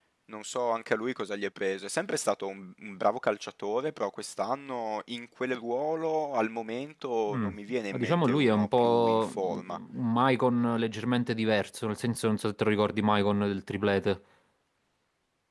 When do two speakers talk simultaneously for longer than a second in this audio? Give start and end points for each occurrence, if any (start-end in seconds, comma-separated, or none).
8.0-9.8